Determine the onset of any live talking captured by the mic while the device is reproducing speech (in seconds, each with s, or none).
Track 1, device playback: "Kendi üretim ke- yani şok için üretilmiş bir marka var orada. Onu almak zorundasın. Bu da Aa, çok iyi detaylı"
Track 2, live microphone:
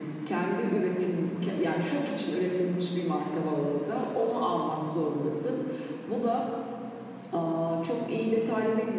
none